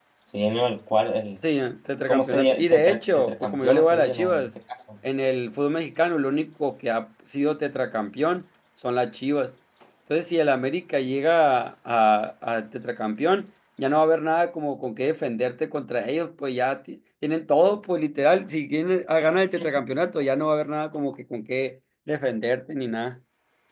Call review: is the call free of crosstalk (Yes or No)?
No